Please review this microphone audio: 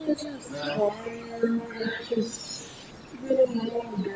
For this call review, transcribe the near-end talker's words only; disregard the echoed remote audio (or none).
Well,